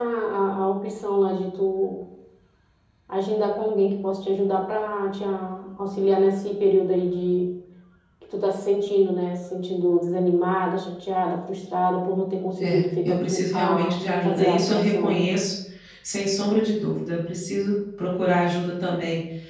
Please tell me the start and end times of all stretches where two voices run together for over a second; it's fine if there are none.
12.6-15.2

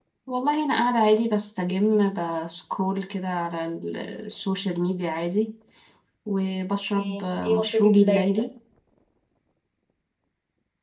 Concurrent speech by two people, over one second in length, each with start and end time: 6.9-8.4

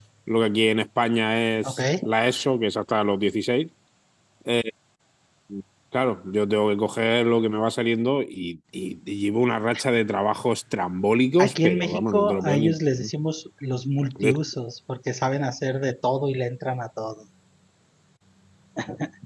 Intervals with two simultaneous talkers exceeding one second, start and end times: 11.4-13.1

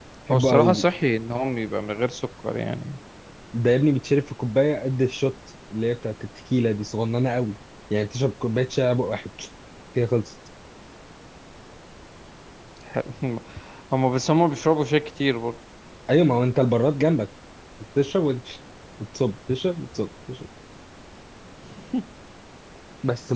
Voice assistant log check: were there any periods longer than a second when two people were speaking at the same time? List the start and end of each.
none

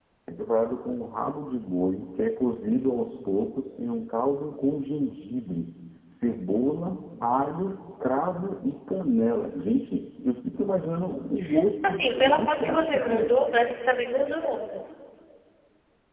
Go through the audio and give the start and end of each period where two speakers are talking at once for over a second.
11.8-13.3

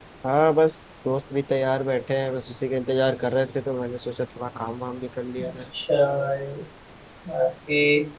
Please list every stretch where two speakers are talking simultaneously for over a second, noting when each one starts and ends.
none

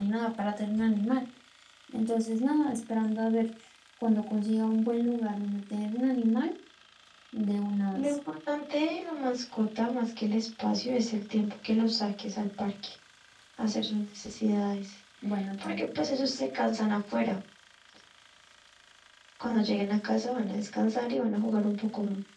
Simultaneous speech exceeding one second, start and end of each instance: none

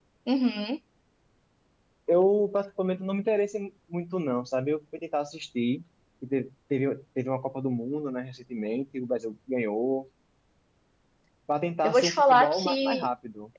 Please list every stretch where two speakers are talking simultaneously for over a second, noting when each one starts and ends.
11.8-13.1

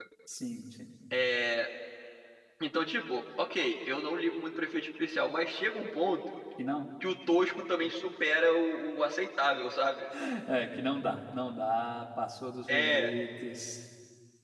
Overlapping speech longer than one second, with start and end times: none

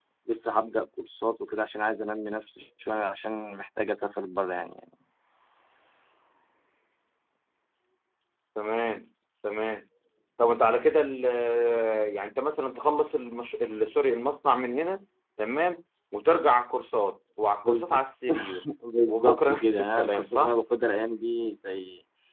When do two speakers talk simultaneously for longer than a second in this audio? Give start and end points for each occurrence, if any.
19.1-20.6

